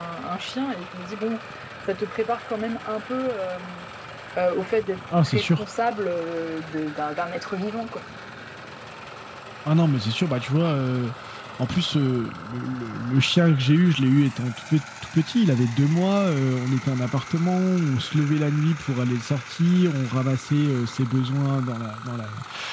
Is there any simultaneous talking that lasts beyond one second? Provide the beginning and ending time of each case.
none

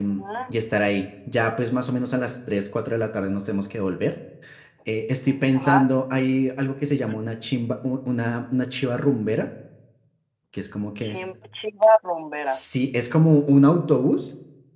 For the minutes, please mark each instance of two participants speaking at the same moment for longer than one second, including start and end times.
none

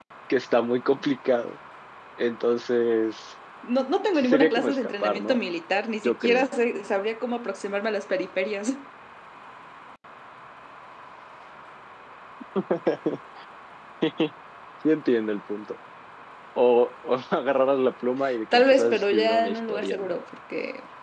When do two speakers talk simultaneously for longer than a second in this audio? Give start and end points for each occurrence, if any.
4.2-5.4, 18.5-20.2

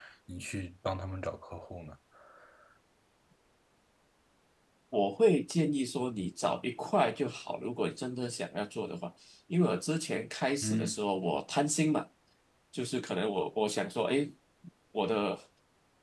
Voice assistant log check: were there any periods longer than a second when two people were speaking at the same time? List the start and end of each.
none

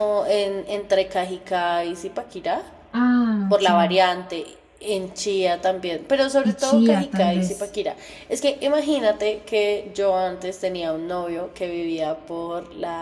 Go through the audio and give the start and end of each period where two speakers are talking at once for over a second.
6.4-7.7

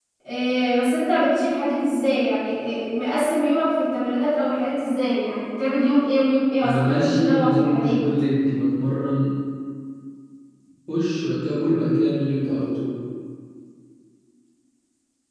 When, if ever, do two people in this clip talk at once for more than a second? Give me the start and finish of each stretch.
6.6-8.0

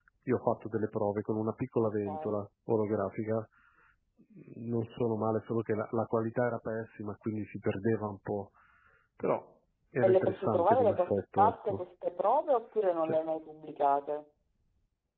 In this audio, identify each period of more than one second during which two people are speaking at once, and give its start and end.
10.0-11.8

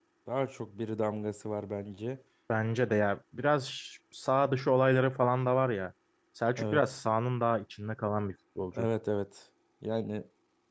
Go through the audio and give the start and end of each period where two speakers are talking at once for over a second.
none

